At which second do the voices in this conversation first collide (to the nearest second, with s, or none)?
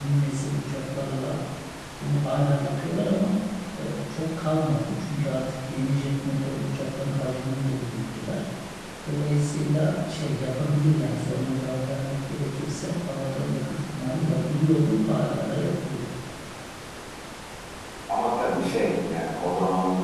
none